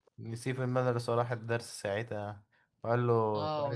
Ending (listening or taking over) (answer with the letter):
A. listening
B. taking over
B